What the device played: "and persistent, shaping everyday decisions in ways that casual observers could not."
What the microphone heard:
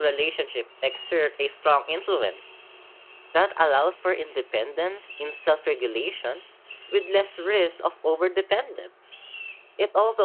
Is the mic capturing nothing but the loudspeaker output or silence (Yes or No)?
No